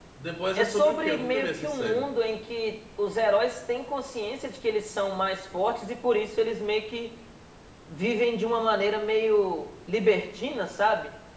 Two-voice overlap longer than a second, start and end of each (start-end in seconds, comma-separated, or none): 0.6-2.1